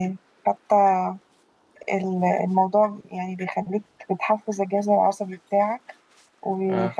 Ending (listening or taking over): listening